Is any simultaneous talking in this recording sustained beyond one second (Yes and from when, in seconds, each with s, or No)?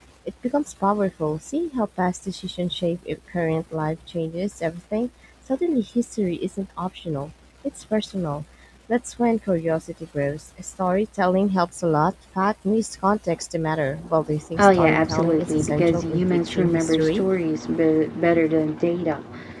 Yes, from 14.5 s